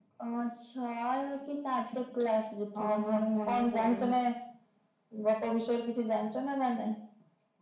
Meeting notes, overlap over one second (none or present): present